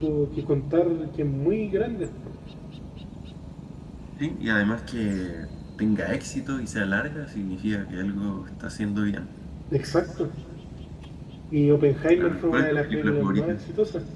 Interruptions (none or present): present